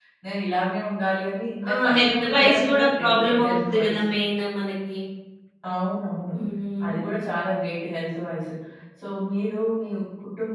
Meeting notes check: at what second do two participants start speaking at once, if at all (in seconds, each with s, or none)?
1.6 s